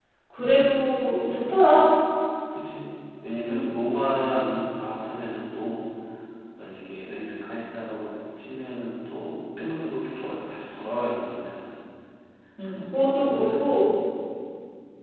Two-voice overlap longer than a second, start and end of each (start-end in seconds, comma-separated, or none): 12.6-13.8